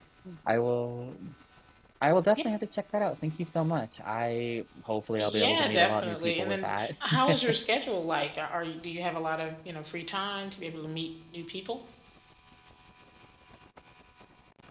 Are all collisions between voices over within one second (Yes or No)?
No